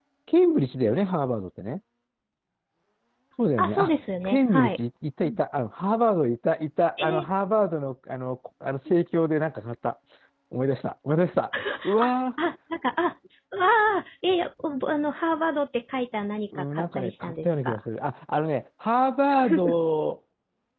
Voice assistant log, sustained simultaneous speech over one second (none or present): present